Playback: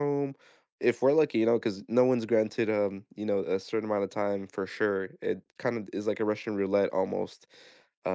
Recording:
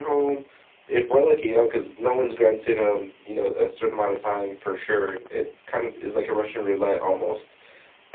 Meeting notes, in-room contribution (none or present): none